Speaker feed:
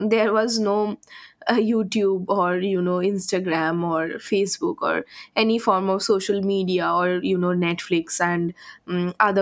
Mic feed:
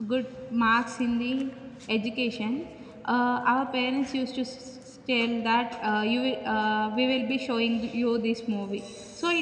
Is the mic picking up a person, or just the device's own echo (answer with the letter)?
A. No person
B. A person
B